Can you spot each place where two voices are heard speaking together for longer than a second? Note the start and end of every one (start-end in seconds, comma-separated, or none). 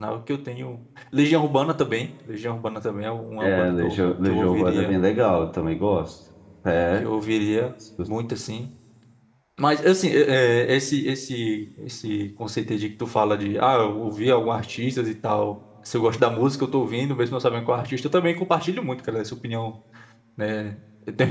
3.4-4.9